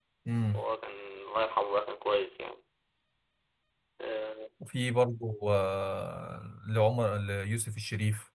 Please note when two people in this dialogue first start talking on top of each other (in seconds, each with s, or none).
none